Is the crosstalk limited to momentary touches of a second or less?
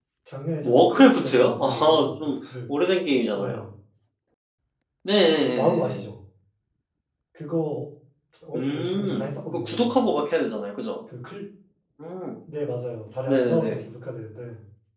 No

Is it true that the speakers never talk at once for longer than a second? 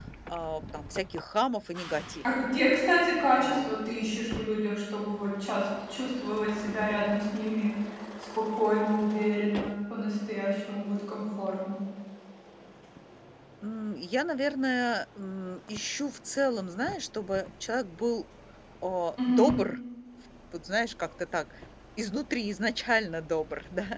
Yes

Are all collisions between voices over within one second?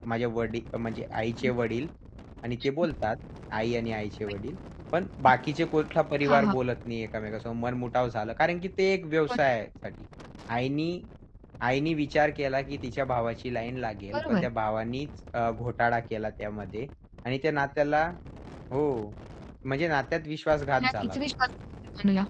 Yes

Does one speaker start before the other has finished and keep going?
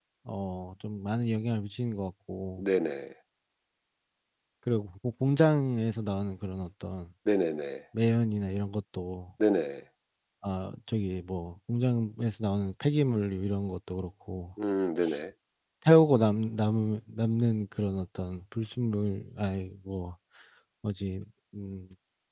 No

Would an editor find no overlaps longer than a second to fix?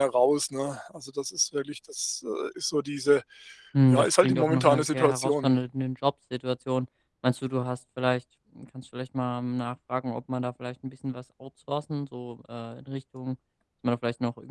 No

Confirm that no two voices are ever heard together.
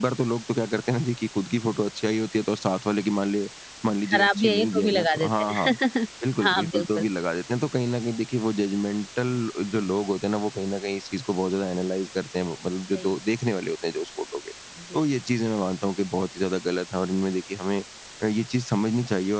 No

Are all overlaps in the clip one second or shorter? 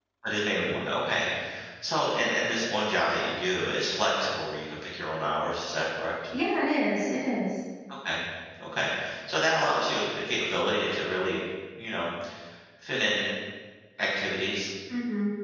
Yes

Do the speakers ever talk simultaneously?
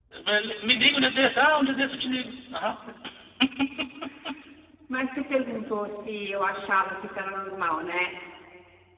No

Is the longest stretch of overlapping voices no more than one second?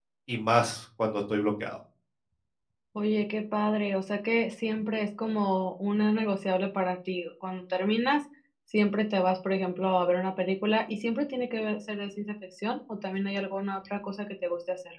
Yes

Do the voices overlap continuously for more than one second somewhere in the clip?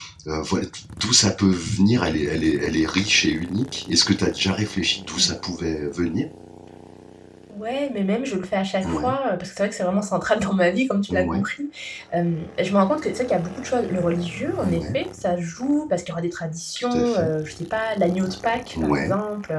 No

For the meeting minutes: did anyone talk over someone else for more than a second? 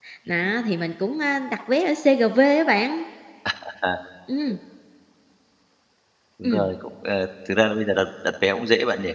No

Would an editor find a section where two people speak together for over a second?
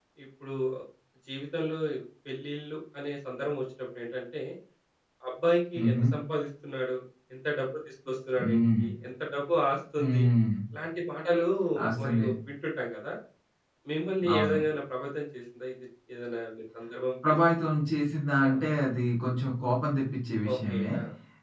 No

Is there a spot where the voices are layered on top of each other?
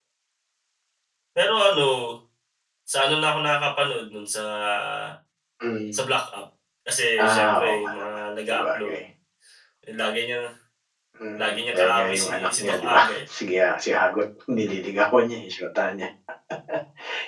Yes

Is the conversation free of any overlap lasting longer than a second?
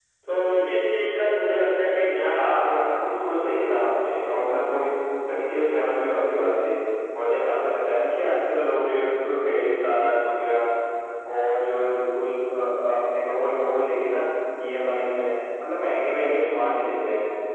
No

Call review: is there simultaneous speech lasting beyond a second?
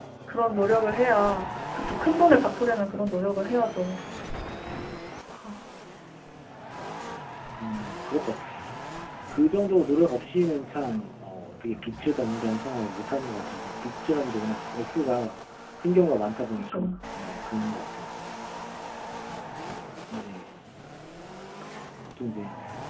No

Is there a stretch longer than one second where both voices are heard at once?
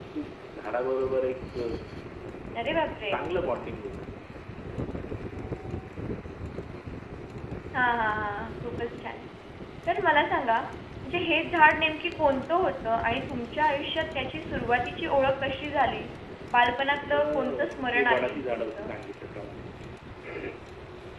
Yes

